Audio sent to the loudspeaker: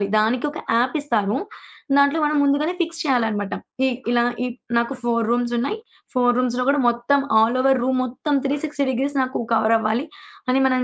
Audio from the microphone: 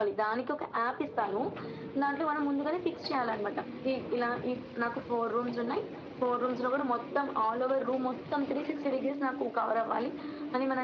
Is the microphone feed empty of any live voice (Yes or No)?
Yes